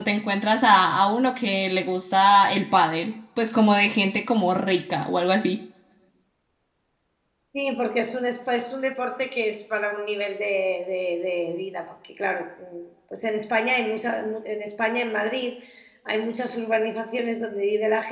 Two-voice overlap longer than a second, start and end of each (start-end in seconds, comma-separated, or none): none